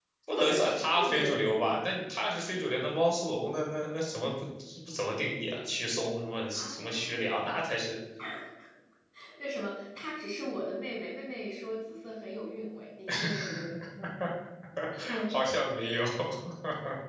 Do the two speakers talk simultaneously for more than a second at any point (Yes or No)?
Yes